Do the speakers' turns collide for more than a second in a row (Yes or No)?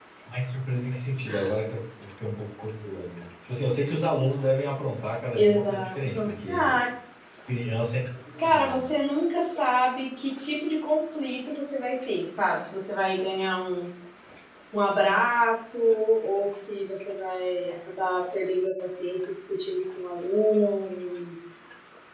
Yes